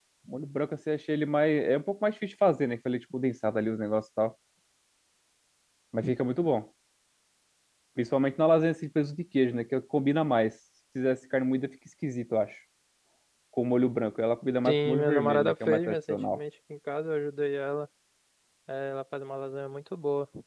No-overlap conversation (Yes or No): No